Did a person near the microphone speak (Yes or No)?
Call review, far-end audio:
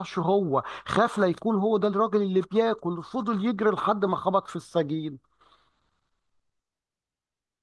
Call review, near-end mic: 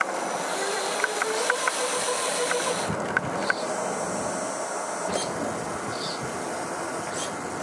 No